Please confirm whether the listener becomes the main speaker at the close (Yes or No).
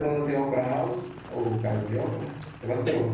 Yes